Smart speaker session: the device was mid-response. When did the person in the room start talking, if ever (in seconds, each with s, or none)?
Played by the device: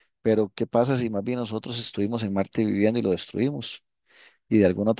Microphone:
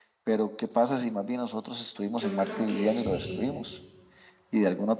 2.1 s